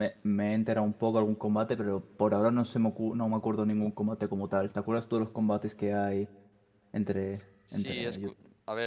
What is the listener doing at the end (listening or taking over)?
taking over